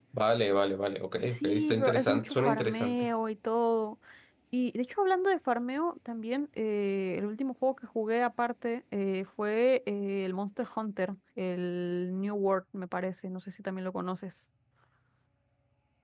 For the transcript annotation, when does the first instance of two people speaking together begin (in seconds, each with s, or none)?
1.3 s